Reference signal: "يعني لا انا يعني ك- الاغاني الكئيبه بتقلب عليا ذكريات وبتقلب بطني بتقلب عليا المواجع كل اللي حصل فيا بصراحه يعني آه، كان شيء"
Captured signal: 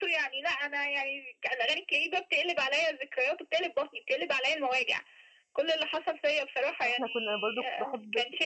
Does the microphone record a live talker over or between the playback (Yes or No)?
Yes